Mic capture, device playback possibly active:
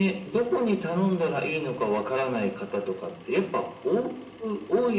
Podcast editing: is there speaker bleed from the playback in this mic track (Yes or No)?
Yes